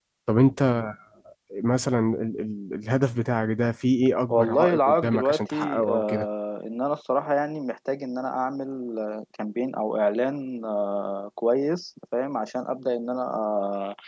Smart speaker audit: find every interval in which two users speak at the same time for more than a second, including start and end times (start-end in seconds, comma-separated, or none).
4.3-6.2